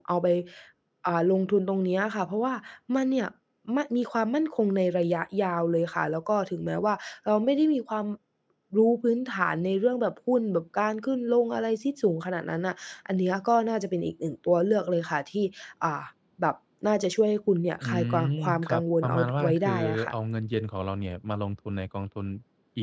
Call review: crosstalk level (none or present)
present